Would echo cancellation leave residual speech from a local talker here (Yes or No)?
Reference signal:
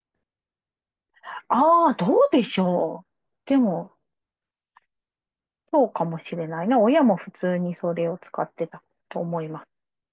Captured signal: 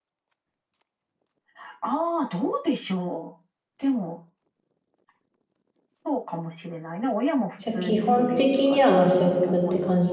Yes